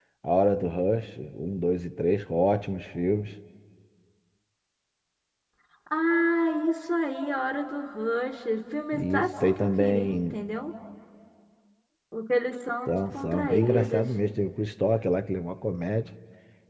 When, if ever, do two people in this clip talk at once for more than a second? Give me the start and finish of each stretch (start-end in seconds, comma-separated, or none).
8.9-10.3, 12.9-14.1